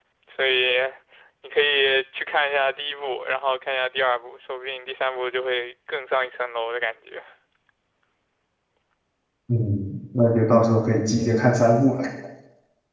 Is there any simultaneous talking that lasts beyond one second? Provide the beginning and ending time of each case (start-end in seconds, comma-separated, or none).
none